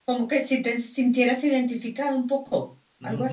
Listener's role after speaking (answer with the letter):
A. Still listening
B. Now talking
B